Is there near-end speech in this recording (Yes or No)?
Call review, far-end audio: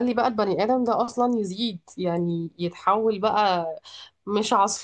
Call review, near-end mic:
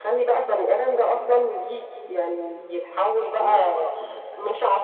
Yes